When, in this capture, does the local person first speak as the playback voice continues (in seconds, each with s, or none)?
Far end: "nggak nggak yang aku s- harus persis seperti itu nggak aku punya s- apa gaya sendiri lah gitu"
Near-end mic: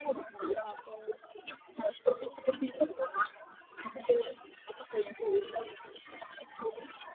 none